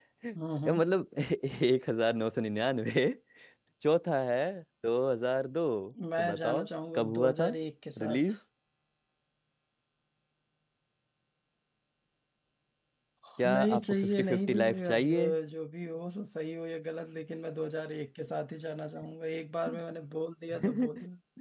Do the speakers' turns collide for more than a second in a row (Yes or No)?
Yes